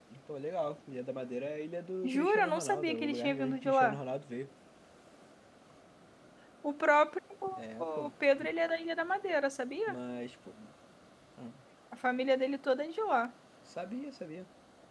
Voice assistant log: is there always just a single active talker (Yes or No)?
No